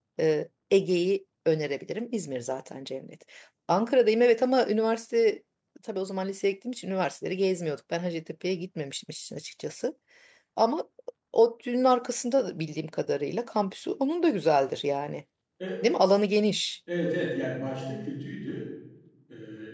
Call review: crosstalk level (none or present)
none